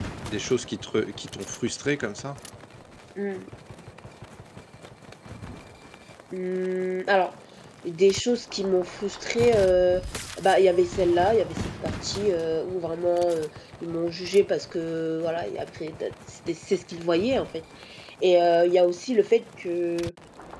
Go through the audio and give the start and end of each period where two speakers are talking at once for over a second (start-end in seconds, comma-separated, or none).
none